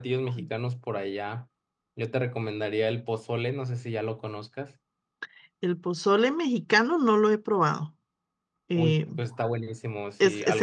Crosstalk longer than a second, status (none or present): none